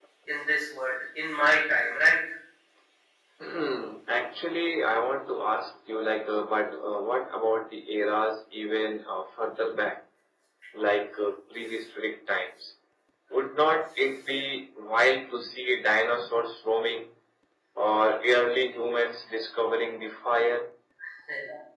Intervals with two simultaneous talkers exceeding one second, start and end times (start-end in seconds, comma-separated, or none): none